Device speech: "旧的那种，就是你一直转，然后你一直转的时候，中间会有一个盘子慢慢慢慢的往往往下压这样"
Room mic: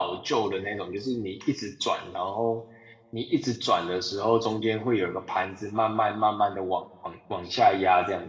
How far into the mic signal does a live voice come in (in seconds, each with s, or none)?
none